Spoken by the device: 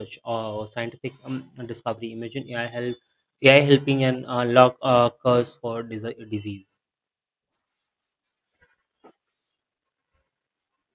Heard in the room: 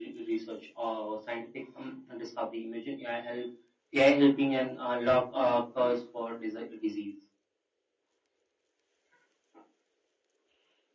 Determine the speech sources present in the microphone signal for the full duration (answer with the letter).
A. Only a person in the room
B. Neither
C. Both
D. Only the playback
D